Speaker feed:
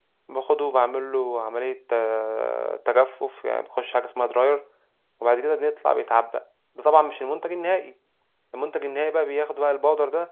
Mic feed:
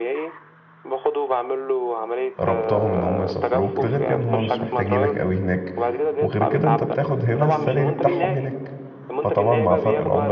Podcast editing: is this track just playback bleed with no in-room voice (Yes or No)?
No